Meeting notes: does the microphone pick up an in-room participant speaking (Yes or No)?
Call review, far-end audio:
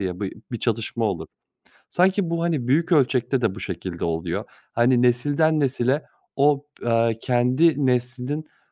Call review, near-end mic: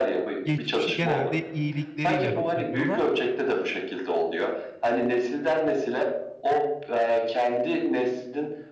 Yes